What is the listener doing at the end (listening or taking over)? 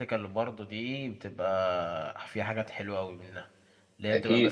listening